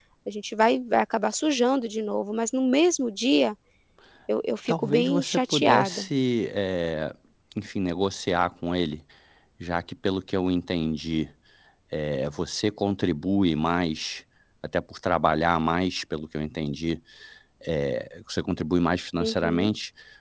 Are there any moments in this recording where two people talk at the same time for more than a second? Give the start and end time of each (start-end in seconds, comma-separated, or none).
4.7-6.1